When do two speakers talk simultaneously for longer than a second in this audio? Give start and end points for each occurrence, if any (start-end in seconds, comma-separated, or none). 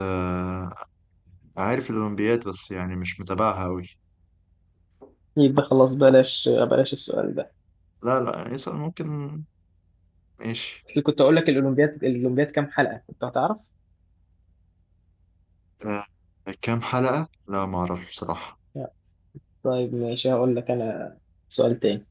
none